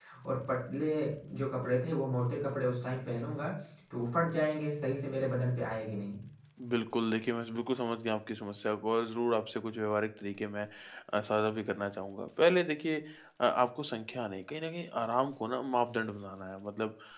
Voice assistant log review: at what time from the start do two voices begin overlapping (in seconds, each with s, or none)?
none